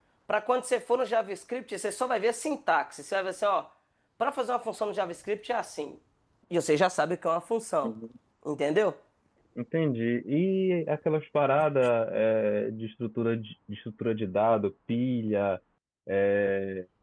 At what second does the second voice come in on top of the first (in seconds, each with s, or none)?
none